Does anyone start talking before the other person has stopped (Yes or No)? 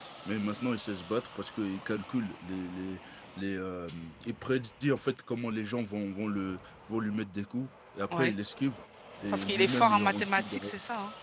Yes